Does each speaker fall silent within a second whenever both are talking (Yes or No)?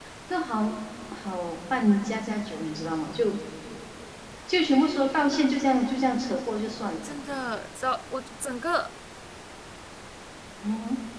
Yes